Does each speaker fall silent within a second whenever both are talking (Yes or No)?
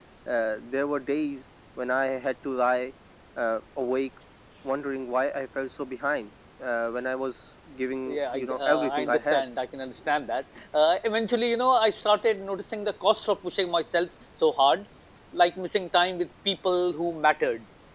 No